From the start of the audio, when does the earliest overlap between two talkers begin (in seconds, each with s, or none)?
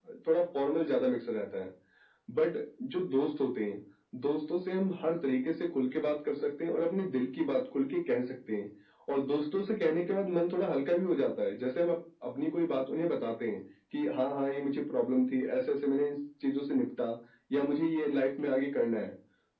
none